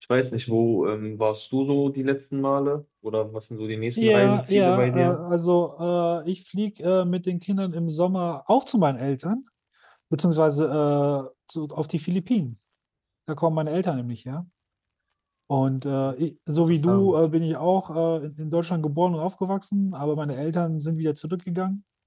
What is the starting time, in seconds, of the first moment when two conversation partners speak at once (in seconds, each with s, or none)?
4.0 s